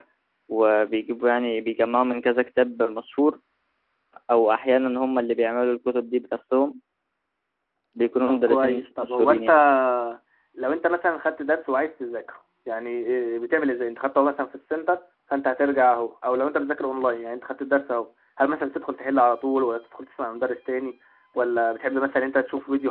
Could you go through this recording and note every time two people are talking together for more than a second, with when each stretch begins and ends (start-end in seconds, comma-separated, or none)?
8.3-9.5